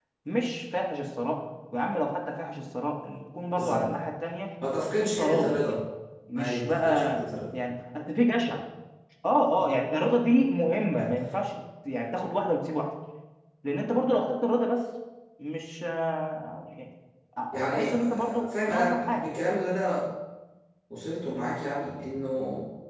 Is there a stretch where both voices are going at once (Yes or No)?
Yes